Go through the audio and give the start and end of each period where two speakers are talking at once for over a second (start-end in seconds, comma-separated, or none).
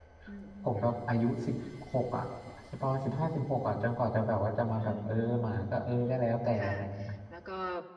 4.7-6.0